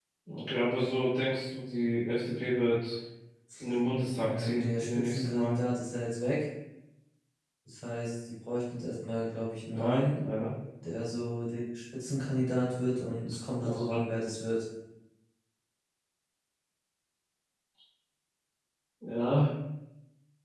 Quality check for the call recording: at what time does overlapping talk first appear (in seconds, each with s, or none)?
4.2 s